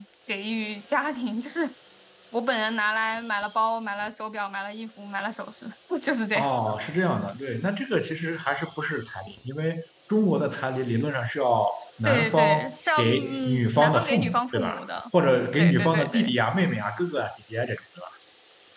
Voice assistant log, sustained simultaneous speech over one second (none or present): present